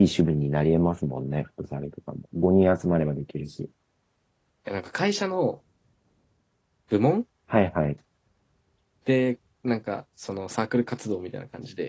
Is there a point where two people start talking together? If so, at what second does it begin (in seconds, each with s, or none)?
none